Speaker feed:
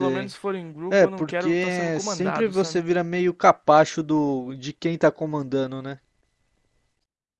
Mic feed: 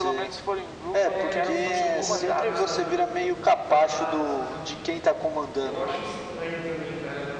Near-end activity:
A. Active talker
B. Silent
A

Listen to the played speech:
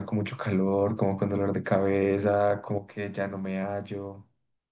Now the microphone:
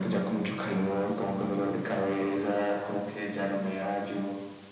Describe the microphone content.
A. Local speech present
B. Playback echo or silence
B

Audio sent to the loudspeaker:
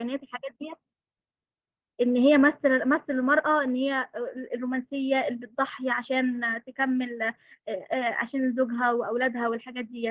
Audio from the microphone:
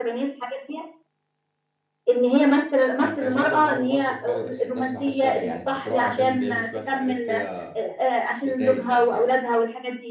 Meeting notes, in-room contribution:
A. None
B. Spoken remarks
B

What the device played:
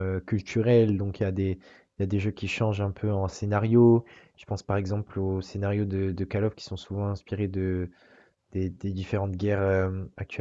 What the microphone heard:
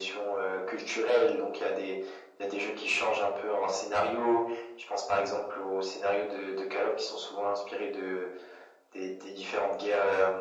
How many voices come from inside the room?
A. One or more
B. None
B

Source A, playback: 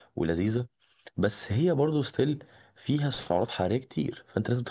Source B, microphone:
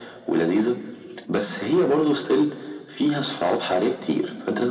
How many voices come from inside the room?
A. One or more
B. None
B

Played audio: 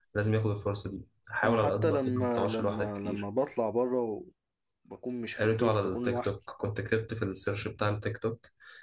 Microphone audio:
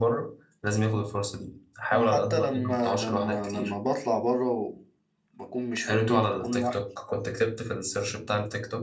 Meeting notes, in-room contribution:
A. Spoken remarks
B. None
B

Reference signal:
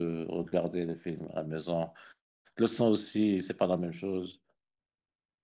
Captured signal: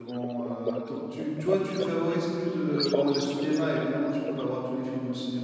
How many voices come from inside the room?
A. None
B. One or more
B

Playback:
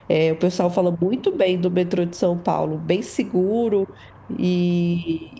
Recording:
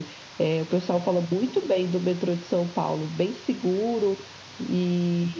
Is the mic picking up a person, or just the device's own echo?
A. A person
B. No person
B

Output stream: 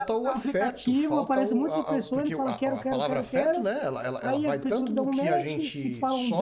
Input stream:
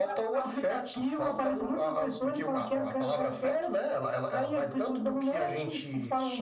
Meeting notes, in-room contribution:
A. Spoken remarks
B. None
B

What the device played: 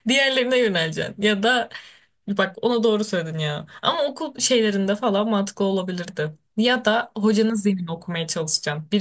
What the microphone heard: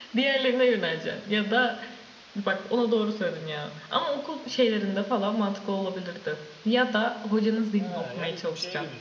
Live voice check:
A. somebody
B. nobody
A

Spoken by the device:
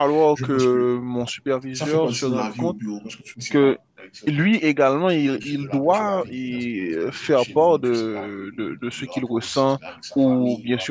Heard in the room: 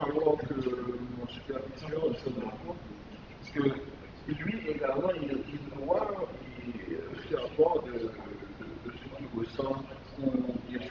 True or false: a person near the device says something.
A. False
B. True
A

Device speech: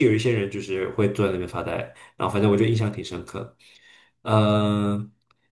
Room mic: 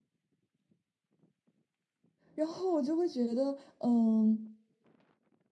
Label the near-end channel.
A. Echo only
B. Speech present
B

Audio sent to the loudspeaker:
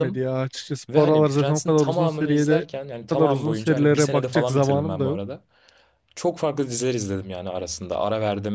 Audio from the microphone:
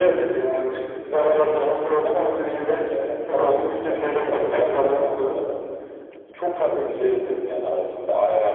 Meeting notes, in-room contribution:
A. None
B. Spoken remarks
A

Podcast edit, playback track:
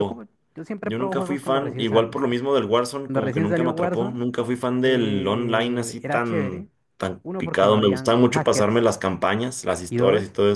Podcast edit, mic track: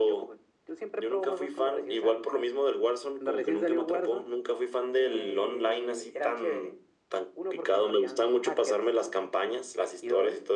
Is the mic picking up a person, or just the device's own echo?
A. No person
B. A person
A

